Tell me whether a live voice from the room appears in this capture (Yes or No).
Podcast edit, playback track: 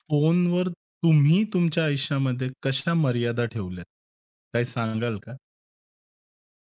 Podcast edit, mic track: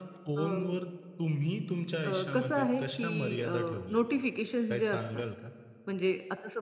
Yes